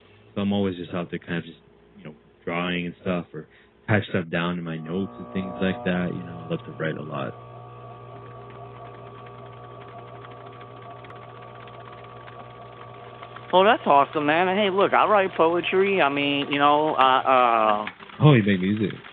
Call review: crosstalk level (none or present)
none